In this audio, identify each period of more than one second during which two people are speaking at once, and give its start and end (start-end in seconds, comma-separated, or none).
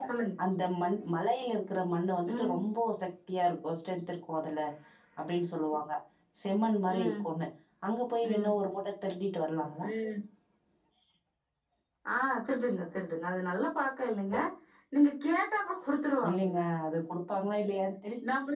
none